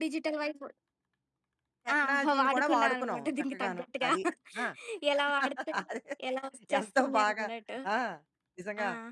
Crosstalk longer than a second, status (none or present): present